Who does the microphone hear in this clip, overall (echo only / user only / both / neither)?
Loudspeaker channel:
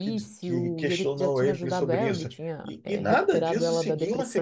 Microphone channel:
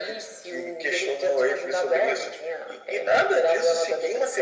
echo only